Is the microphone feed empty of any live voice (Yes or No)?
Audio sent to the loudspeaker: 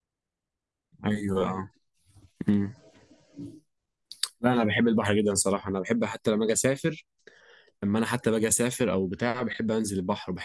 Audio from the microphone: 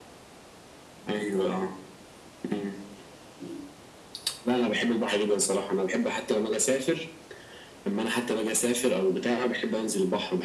Yes